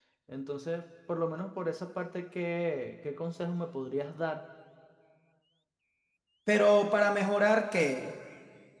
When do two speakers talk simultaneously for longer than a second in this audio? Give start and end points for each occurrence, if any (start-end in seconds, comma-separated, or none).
none